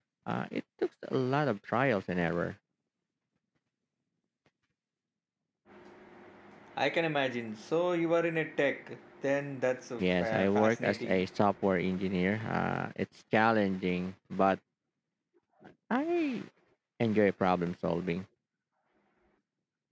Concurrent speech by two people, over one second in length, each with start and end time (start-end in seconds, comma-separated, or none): 10.0-11.2